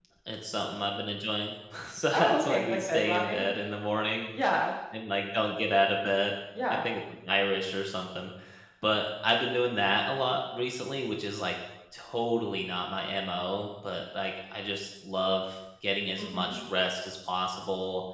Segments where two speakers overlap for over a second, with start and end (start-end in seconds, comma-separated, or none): 2.1-3.5